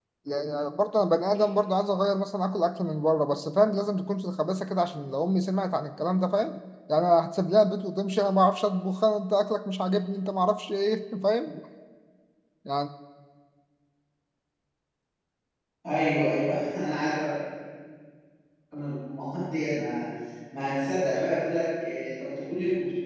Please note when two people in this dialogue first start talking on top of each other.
none

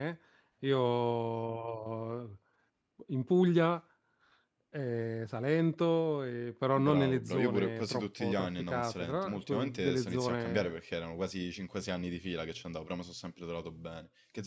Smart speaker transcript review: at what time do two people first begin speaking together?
6.8 s

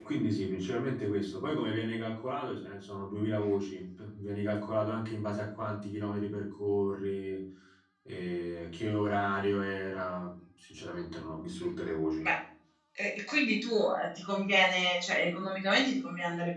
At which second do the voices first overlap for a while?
none

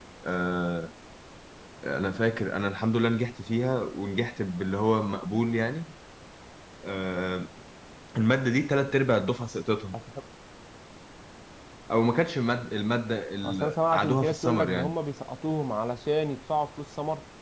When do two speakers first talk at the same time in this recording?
13.4 s

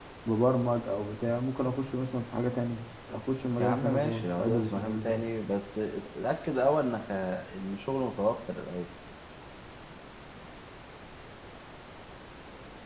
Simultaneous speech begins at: 3.6 s

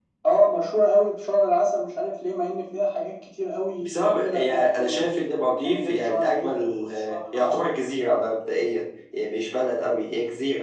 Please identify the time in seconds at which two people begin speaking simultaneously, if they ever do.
3.8 s

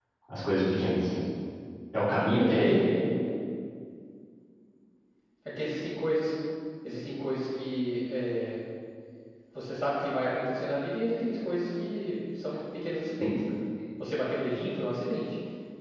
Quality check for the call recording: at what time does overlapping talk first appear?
none

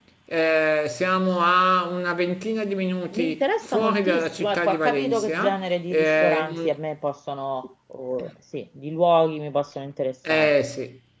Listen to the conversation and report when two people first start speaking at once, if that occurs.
3.1 s

